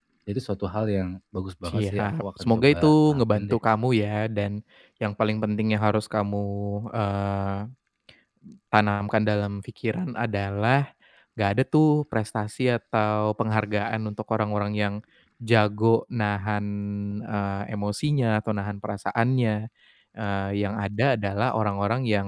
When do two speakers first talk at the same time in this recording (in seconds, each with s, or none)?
1.6 s